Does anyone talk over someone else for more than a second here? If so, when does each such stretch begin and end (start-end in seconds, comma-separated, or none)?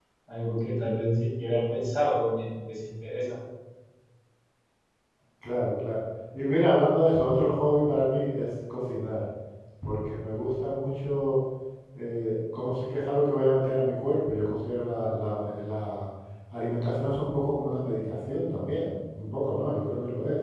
none